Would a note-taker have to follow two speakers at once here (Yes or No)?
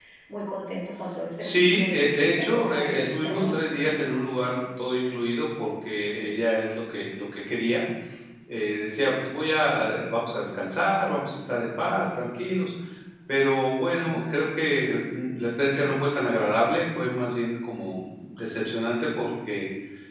Yes